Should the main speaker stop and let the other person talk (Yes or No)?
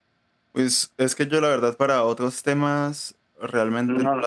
No